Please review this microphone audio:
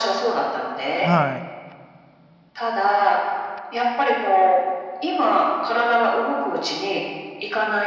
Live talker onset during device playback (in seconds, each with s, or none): 1.0 s